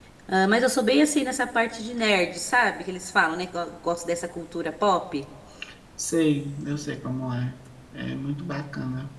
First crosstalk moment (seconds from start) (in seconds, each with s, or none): none